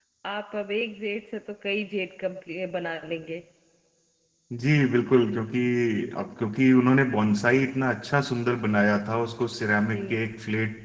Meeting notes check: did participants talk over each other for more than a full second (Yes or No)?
No